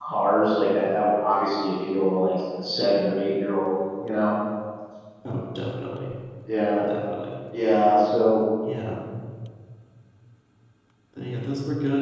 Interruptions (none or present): none